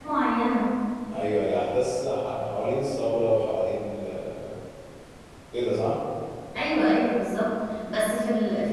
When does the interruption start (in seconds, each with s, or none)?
none